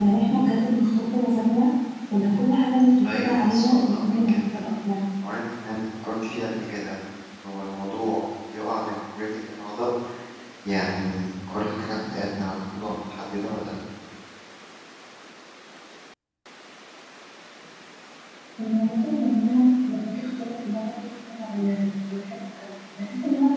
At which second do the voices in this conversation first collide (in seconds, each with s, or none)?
3.0 s